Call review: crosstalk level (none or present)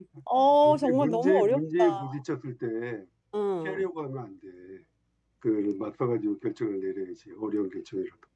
present